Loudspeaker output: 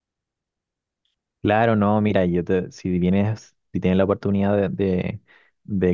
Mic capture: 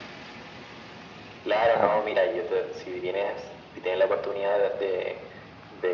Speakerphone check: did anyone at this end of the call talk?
Yes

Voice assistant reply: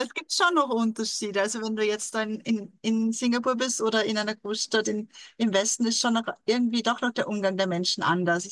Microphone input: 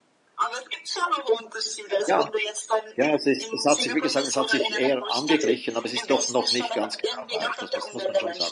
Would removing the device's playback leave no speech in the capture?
No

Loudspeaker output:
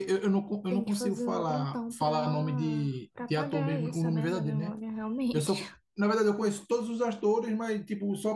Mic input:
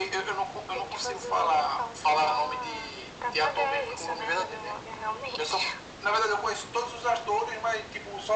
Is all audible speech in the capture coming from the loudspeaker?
Yes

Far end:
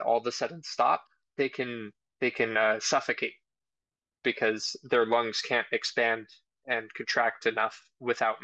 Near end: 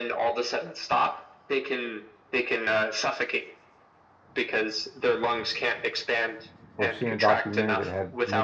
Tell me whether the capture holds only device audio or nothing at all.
No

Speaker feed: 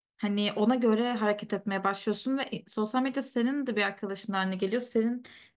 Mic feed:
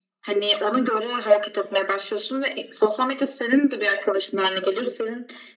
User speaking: No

